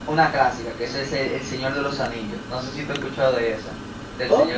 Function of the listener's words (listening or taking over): taking over